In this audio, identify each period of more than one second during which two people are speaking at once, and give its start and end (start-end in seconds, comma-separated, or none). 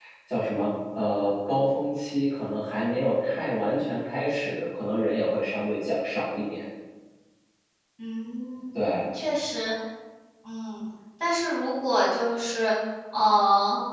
none